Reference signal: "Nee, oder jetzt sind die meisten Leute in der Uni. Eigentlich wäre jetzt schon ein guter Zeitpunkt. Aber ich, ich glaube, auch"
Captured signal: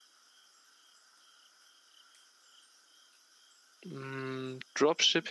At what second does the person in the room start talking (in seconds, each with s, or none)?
3.8 s